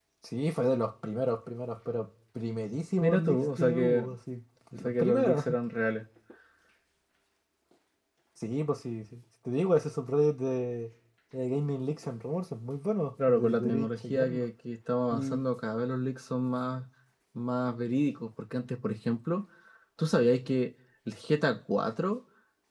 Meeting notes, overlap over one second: present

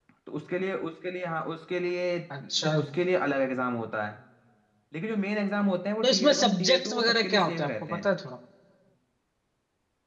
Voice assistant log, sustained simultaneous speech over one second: present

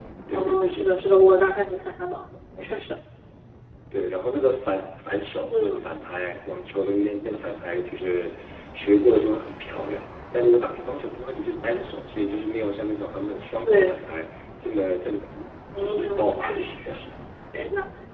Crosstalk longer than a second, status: present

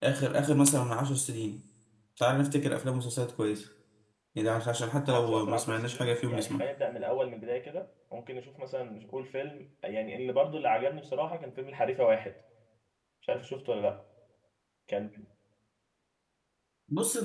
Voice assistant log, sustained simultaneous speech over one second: present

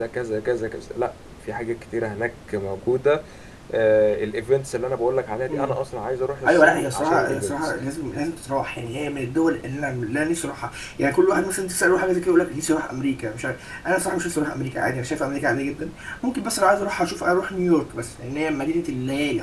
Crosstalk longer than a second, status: present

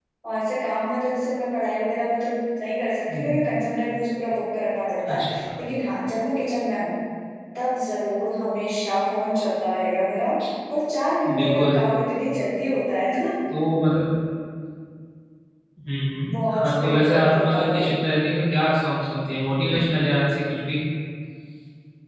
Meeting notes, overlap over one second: present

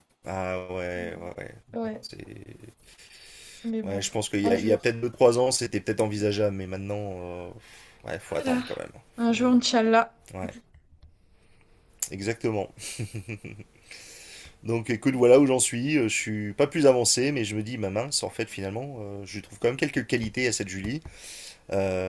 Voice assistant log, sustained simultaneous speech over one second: none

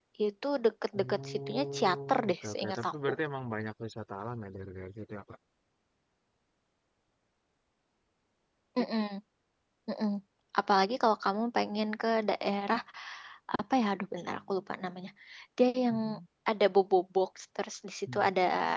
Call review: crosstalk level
present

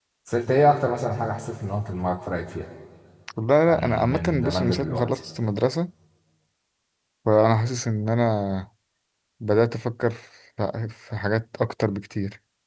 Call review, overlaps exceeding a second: present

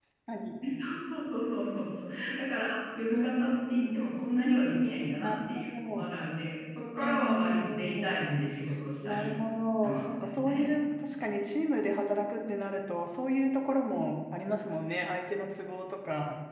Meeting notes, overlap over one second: present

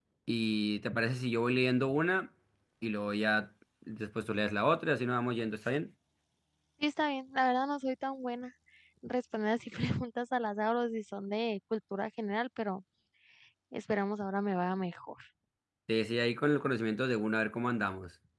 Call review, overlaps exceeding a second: none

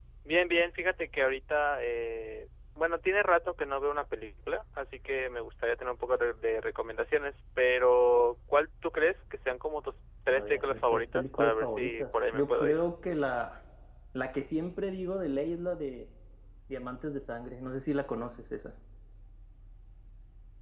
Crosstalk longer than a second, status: present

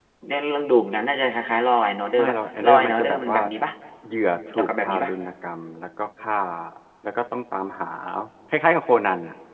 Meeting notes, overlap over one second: present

